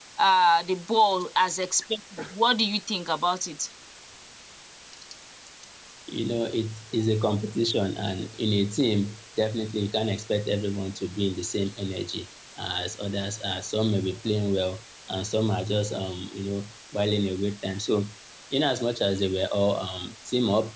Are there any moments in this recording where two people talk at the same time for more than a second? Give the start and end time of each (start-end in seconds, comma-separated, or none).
none